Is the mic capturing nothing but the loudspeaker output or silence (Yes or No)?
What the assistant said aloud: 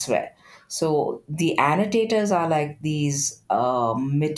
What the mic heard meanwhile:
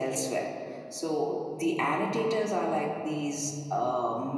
Yes